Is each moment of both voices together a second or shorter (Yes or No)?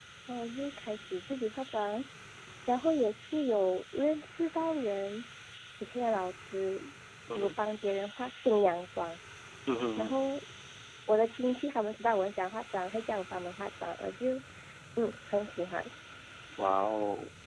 Yes